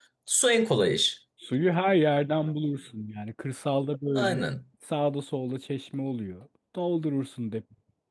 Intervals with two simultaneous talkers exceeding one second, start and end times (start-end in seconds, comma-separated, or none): none